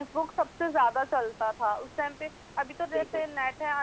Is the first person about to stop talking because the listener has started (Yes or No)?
No